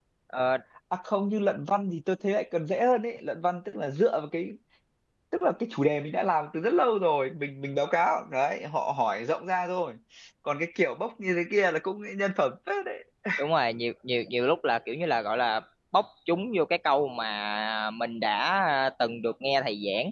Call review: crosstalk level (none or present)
none